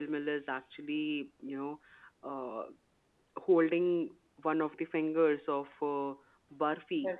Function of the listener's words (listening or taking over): listening